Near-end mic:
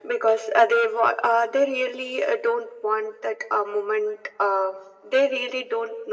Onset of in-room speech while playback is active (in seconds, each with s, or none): none